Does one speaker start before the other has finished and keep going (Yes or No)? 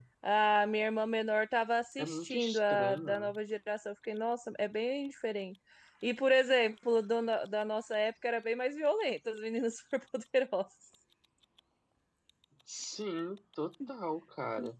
Yes